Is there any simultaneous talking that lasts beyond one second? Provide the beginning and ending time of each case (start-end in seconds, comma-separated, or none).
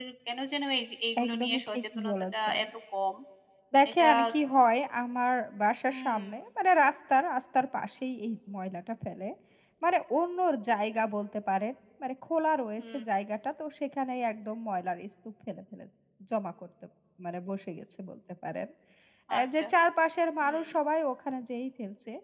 1.2-2.6